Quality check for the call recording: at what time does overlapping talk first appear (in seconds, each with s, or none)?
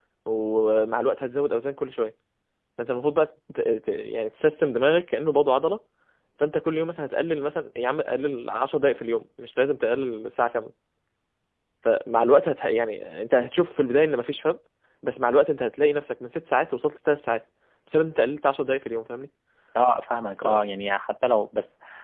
none